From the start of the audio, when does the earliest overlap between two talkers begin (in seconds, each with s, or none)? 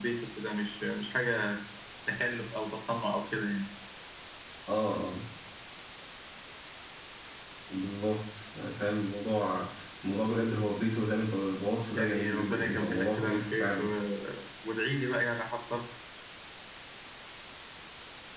11.9 s